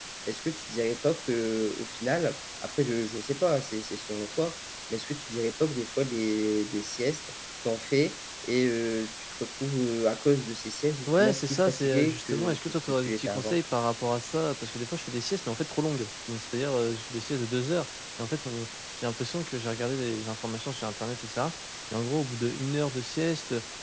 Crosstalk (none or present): present